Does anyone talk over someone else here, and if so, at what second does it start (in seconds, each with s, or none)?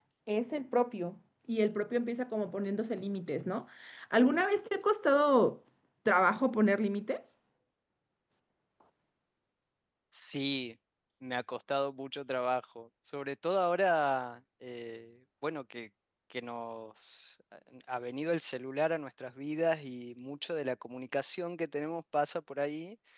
none